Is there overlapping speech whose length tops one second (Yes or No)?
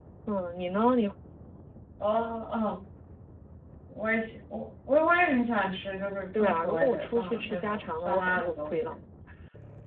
Yes